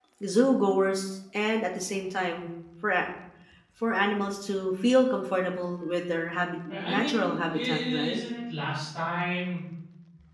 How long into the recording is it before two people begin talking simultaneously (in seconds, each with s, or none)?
6.7 s